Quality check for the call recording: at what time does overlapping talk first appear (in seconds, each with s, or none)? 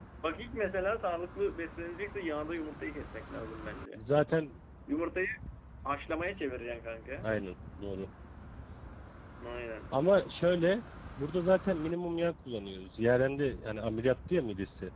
none